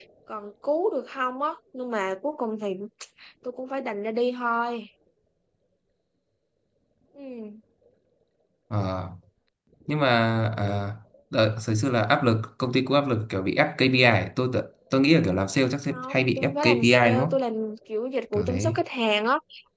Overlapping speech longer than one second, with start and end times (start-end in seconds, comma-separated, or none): 15.9-17.4